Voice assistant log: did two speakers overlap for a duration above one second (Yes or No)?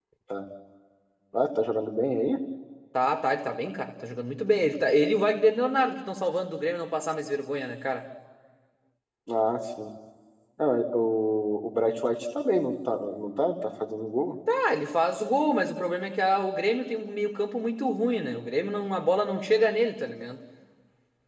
No